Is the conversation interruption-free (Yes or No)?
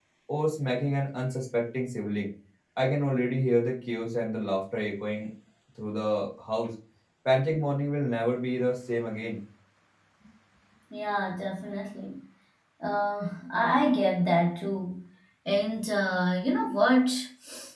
Yes